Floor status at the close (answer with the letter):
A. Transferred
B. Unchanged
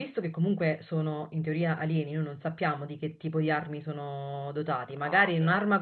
B